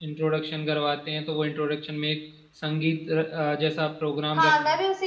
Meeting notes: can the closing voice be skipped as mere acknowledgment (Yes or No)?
No